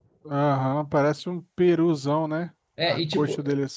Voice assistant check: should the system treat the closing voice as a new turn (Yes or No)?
Yes